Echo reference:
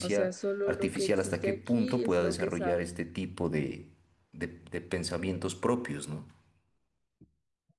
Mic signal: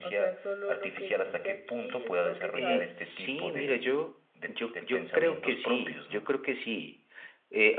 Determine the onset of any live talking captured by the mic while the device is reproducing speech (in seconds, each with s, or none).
2.5 s